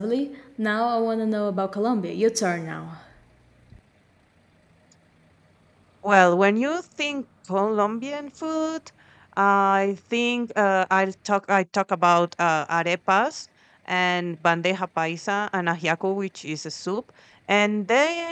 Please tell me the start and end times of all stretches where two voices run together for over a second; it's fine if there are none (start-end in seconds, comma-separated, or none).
none